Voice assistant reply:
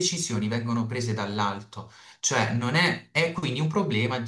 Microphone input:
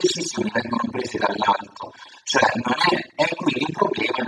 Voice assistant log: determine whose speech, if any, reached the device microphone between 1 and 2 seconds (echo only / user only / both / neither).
echo only